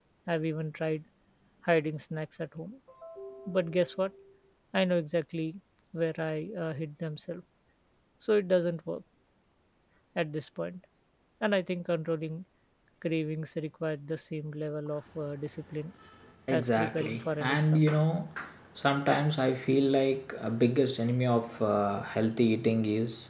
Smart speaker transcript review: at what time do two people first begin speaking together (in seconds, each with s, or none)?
16.5 s